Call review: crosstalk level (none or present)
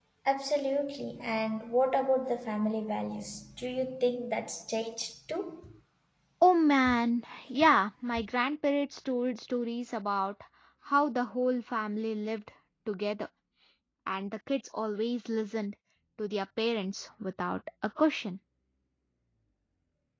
none